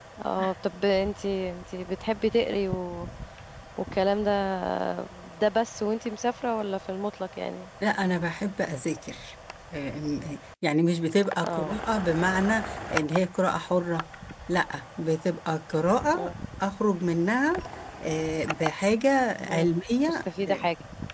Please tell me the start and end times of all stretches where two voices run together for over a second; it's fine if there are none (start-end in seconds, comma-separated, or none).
none